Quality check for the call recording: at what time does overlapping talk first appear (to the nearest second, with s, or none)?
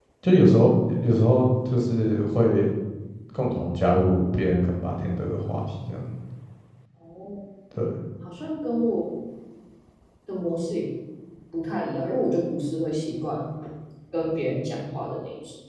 none